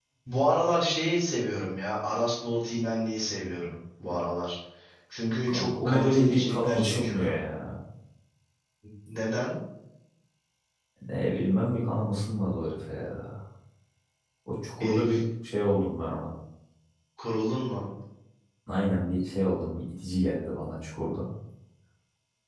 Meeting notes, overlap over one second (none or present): present